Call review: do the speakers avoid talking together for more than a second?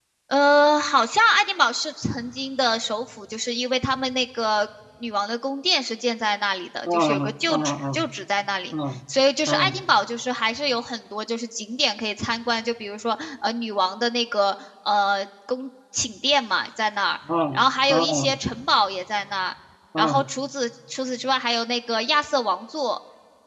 No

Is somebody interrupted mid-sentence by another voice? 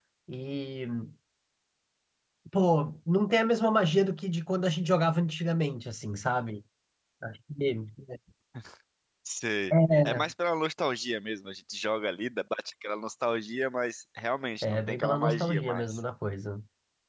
Yes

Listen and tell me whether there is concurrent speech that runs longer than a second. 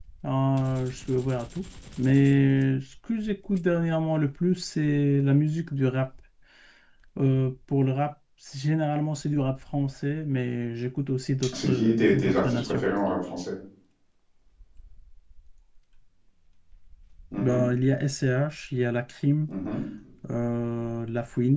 Yes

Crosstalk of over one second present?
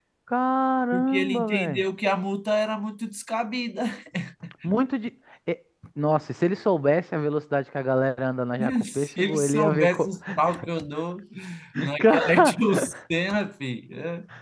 Yes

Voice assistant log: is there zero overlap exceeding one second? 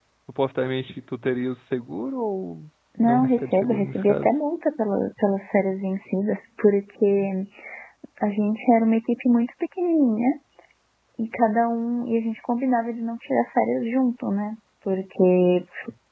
No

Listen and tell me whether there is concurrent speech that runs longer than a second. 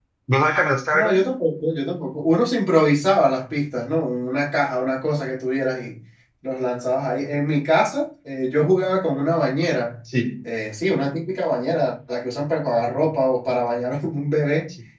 No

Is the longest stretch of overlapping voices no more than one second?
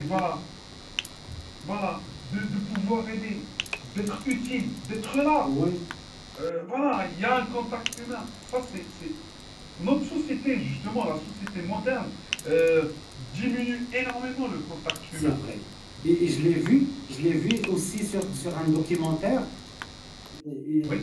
Yes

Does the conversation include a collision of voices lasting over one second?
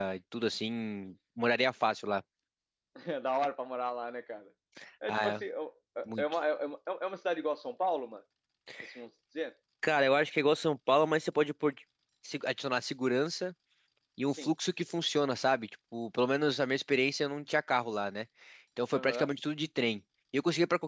No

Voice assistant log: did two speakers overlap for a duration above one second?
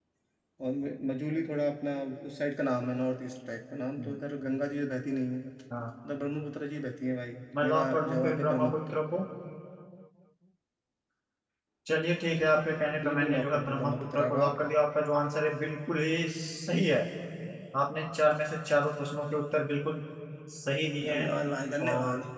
Yes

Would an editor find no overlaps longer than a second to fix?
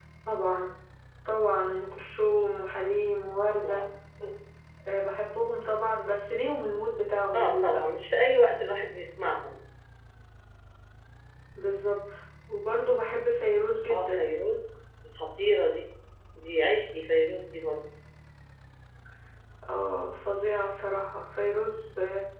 Yes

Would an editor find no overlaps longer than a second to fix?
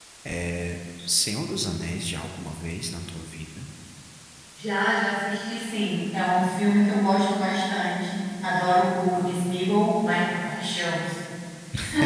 Yes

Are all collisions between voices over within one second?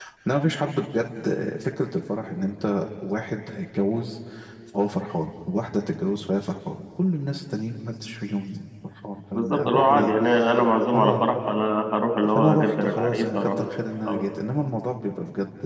No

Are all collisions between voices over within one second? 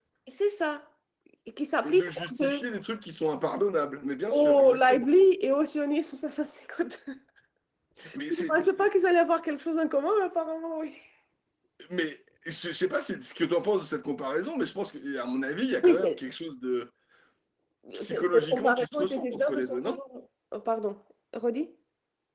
No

